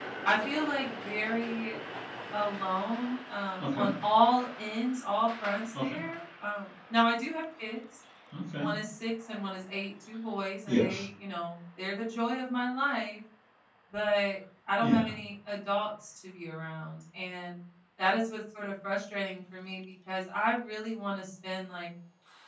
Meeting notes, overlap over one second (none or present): none